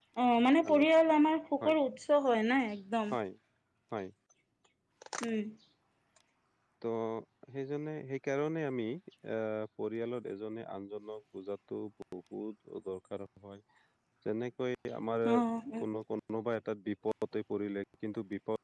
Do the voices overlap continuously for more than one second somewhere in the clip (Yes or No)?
No